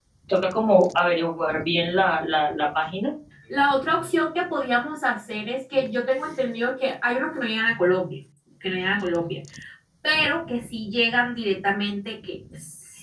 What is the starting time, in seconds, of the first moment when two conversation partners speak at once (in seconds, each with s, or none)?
none